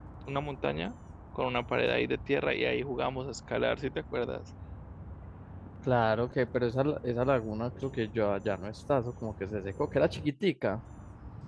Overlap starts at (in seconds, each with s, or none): none